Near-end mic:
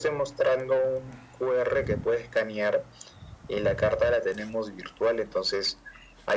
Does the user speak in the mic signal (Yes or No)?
No